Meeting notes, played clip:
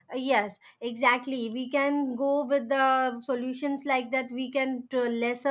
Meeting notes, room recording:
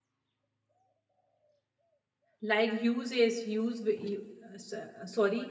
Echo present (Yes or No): No